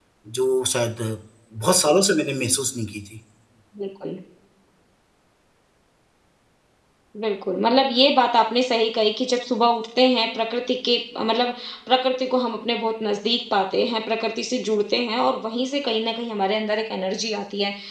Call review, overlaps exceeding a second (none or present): none